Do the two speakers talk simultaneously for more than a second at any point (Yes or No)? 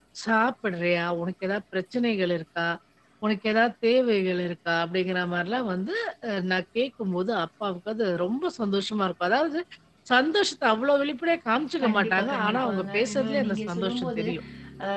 Yes